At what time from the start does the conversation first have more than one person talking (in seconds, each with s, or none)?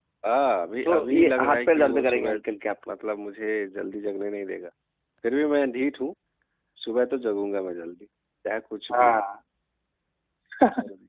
0.8 s